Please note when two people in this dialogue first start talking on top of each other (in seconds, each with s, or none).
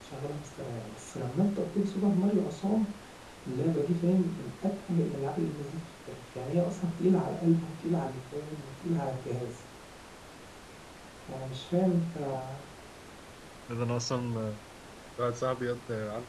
none